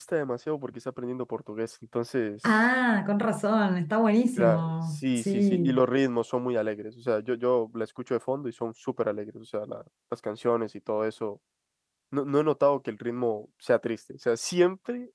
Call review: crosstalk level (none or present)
present